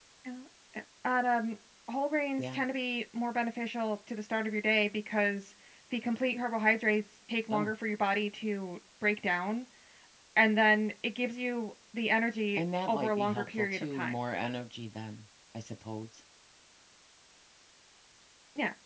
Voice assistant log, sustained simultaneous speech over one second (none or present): present